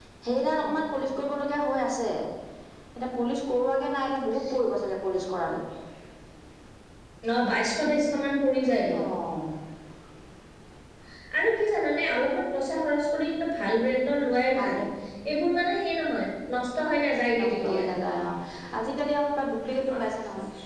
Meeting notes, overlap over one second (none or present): none